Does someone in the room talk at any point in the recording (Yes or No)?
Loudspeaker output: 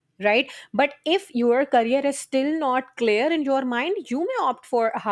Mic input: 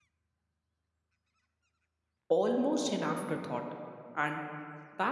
Yes